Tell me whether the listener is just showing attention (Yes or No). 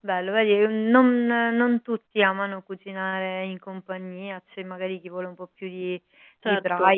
Yes